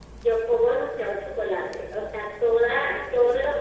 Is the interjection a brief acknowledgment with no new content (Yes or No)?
Yes